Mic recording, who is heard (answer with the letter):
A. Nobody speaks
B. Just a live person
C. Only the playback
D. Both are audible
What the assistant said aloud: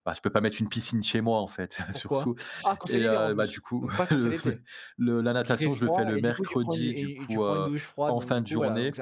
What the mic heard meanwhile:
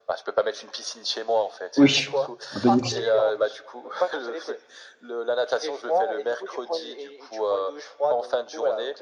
D